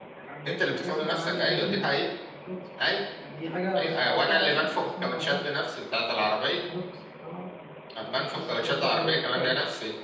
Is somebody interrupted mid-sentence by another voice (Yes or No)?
Yes